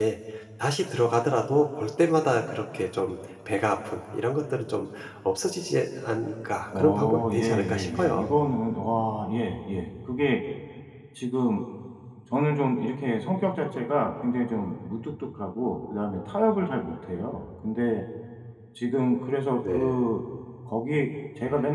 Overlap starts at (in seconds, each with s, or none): 6.8 s